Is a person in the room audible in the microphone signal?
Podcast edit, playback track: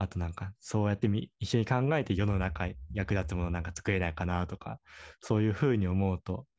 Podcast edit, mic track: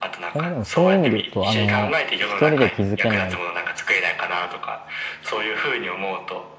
Yes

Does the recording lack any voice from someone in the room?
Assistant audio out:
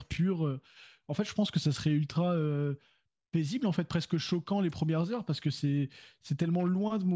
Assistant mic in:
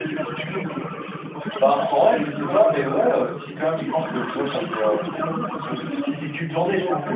No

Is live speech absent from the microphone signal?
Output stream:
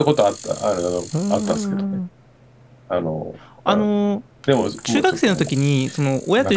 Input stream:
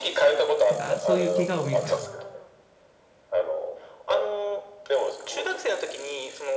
No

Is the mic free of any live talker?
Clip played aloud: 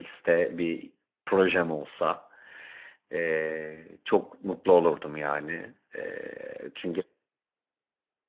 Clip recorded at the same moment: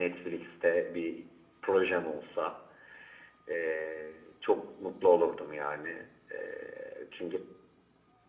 Yes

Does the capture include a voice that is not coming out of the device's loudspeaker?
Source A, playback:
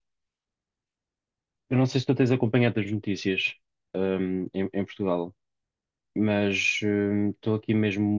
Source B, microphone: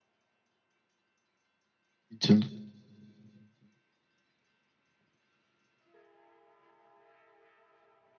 Yes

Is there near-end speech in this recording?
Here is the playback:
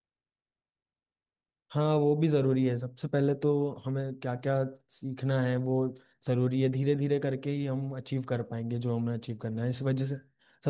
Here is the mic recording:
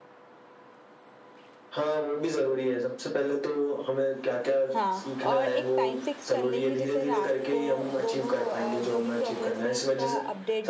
Yes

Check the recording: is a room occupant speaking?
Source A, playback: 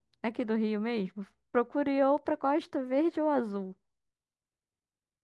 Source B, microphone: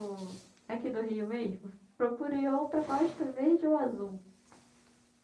No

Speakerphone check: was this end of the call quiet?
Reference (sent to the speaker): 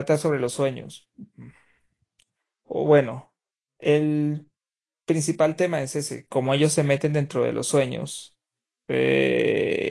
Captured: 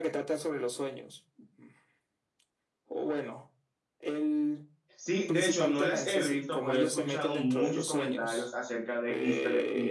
No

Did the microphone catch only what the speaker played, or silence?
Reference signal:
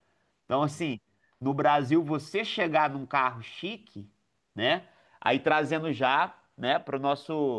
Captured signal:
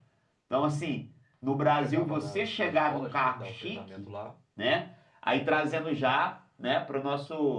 No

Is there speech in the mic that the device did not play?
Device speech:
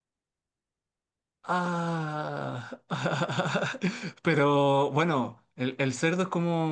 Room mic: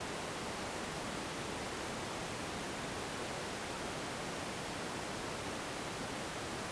No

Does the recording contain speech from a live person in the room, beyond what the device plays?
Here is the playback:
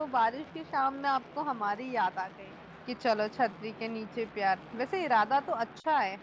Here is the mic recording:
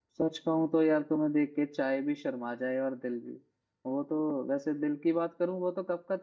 Yes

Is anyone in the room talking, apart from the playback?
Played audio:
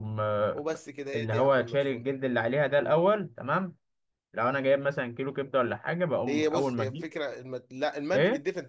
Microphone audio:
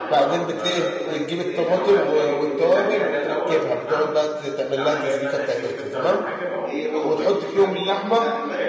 Yes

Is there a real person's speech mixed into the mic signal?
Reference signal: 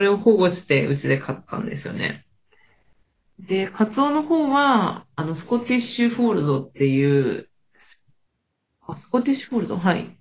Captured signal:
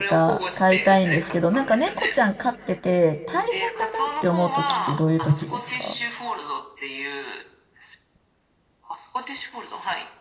Yes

